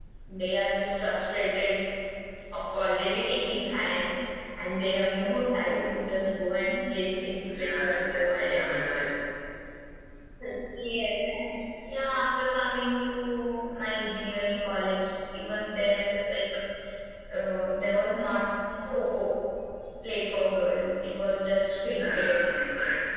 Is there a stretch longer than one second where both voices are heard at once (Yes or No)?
Yes